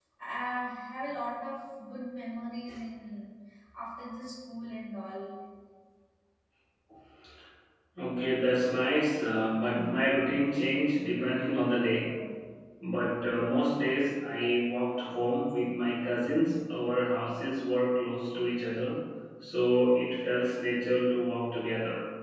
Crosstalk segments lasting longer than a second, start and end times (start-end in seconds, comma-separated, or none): none